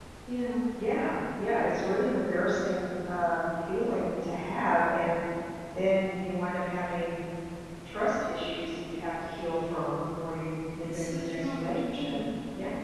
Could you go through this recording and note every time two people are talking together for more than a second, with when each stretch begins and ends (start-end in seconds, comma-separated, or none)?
10.9-12.2